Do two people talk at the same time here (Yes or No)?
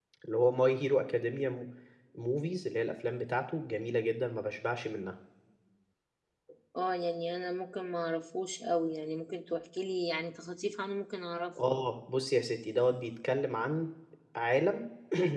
No